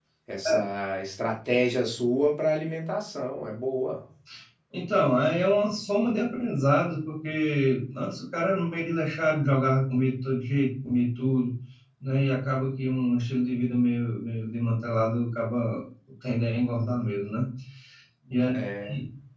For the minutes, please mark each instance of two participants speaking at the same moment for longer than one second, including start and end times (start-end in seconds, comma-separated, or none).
none